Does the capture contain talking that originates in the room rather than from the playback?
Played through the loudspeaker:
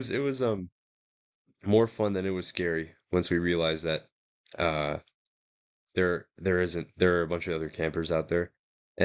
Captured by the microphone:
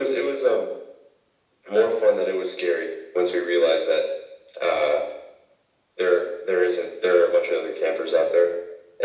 No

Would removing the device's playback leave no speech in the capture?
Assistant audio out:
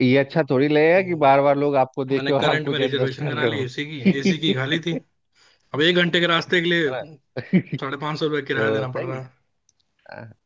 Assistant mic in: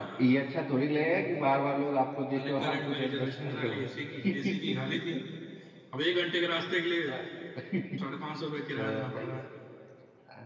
Yes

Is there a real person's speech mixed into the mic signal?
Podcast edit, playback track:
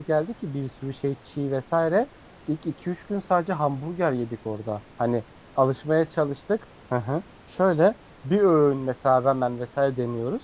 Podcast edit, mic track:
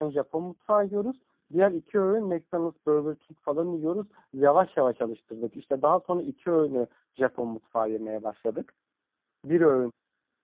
Yes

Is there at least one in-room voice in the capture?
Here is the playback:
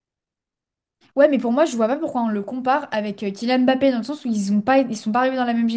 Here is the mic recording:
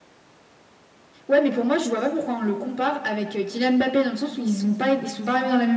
No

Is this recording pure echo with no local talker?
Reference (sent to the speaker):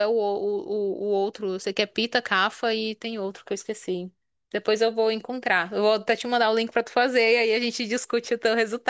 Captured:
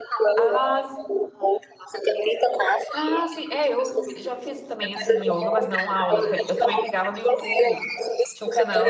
No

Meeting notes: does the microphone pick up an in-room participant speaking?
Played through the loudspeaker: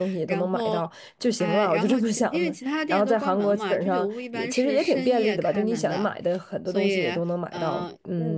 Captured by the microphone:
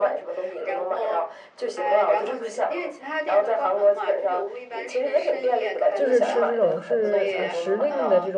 Yes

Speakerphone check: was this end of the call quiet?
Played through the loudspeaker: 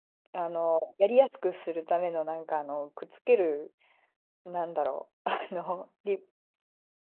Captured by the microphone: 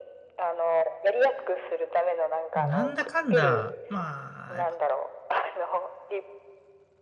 No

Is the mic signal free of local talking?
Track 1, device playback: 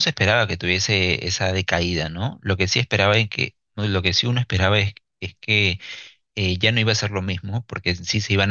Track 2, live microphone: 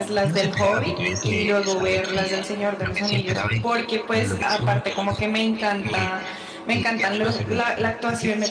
No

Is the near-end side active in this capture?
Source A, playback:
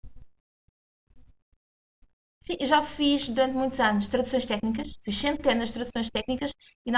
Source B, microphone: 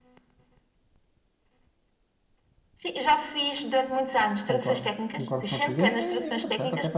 Yes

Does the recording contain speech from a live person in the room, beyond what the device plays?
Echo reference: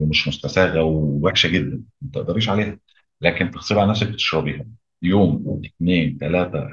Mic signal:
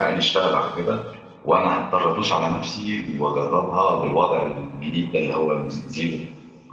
Yes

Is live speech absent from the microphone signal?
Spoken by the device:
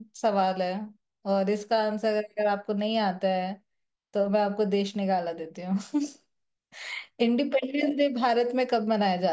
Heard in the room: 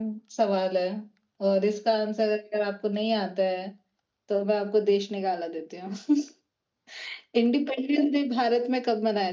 Yes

